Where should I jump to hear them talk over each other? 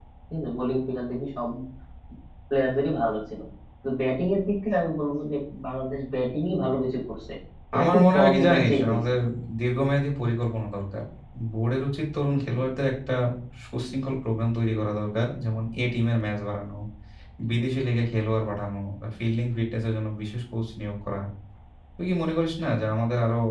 7.8 s

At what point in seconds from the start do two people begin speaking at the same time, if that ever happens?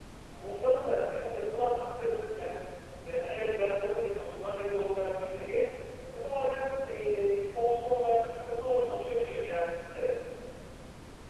none

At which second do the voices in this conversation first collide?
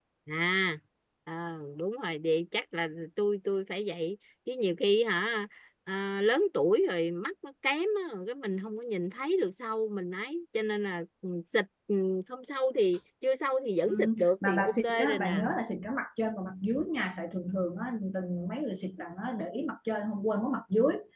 13.8 s

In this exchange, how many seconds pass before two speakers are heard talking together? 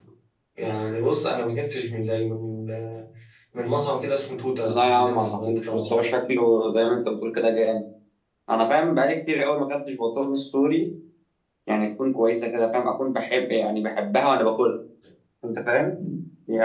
4.7 s

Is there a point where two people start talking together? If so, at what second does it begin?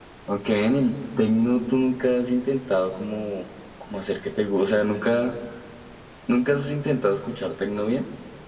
none

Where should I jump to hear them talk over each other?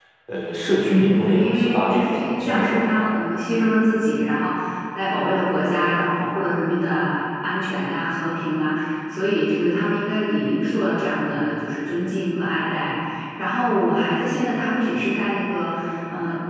0.8 s

